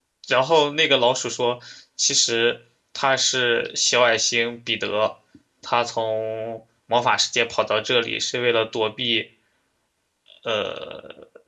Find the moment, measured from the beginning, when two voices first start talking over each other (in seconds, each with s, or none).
none